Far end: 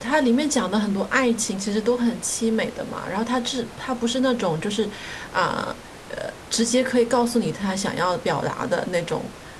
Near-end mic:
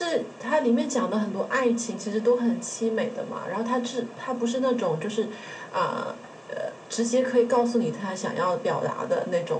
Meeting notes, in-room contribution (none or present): none